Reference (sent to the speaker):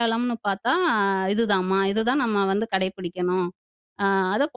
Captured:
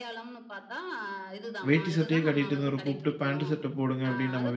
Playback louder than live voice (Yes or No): No